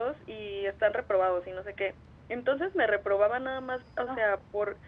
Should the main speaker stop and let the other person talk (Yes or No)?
No